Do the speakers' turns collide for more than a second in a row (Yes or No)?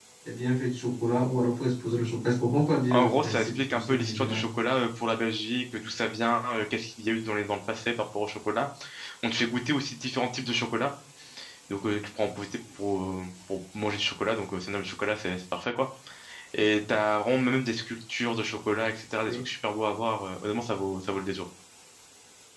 Yes